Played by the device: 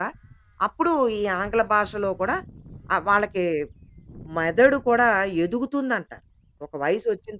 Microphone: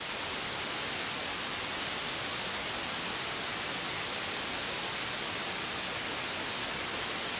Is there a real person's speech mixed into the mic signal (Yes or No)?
No